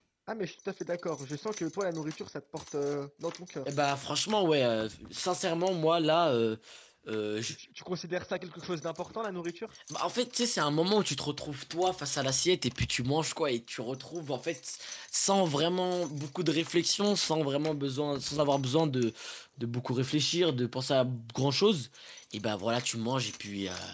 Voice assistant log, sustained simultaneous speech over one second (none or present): none